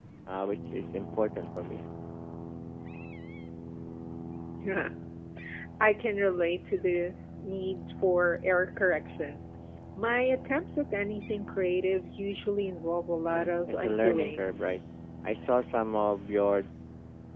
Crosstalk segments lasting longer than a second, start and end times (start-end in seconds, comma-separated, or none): 13.3-14.5